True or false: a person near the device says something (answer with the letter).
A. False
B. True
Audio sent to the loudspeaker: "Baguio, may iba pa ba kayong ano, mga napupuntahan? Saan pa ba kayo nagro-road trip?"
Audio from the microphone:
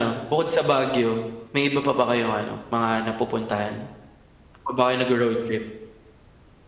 A